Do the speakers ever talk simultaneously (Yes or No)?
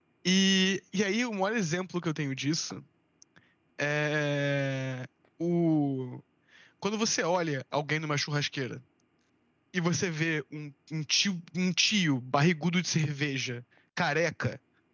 No